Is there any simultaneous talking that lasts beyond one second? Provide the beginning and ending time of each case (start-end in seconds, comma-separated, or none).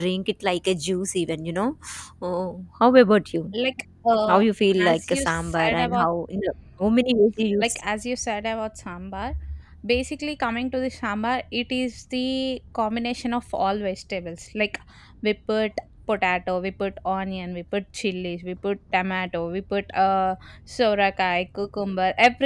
4.8-6.1